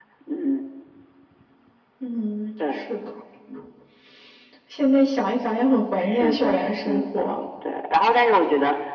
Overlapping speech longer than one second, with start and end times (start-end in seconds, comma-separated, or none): 6.0-7.4